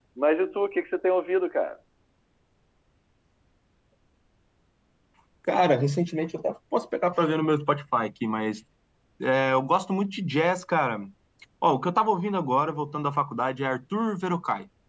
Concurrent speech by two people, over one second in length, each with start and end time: none

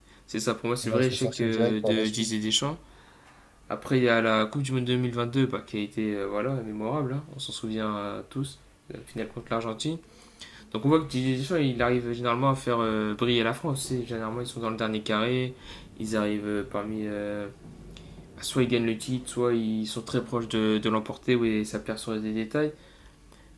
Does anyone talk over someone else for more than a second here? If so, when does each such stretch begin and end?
0.8-2.3

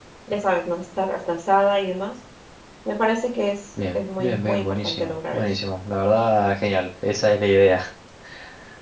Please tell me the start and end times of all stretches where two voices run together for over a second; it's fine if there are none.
3.9-5.4

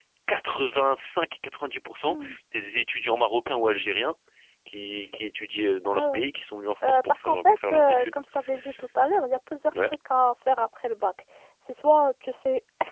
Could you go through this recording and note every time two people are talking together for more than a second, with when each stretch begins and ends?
6.9-8.1

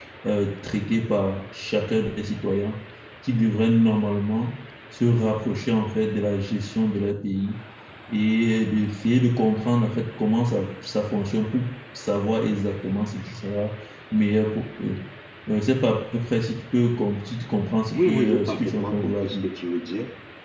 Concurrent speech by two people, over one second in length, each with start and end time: 17.9-19.5

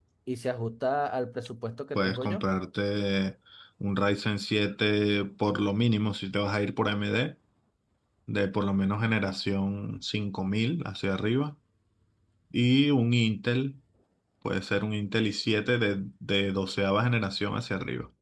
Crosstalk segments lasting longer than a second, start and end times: none

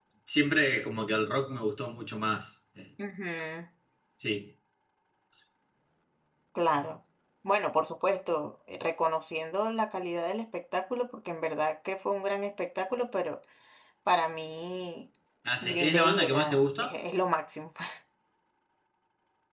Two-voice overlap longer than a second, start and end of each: 15.6-16.9

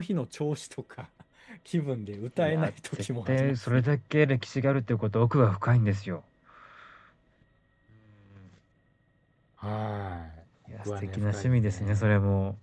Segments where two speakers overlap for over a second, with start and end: 2.4-3.8, 10.8-12.1

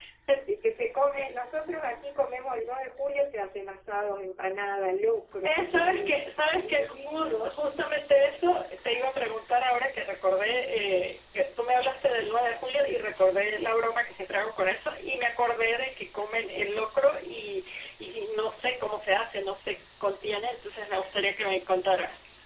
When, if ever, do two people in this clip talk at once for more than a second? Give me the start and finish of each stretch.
5.4-7.6

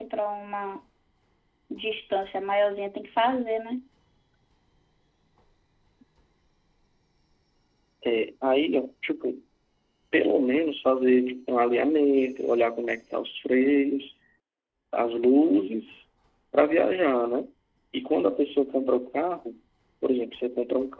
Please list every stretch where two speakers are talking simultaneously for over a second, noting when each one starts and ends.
none

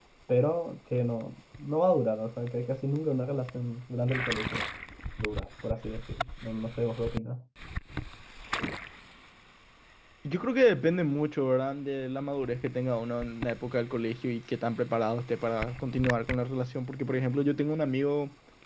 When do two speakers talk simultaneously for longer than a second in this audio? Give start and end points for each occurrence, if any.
none

